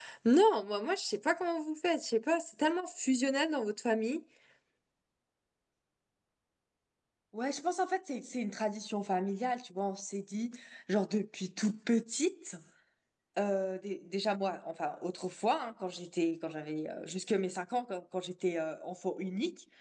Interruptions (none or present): none